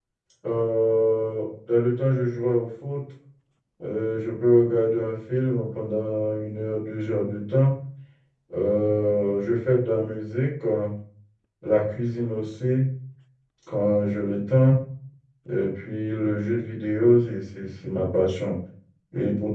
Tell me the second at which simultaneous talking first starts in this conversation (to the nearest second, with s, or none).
none